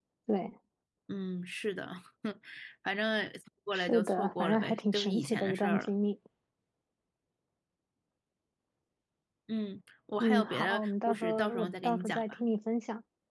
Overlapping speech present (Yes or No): Yes